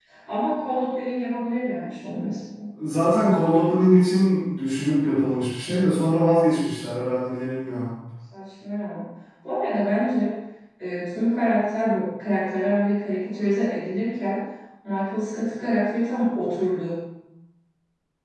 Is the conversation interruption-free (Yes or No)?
Yes